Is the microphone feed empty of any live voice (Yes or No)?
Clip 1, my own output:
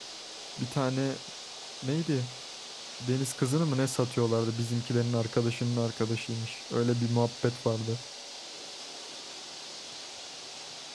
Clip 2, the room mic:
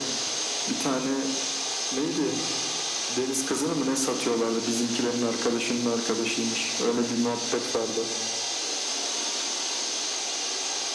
Yes